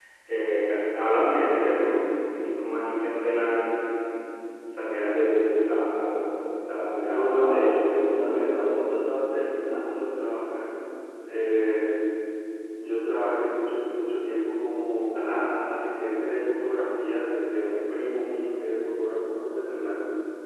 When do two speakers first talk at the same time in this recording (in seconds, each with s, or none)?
7.0 s